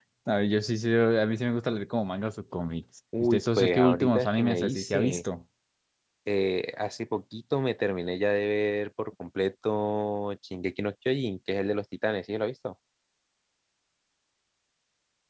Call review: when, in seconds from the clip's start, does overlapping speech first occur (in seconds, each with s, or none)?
3.1 s